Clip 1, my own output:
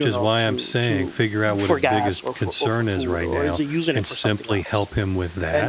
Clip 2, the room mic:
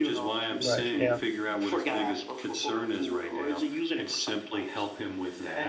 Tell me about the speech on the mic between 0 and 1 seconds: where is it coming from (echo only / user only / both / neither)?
both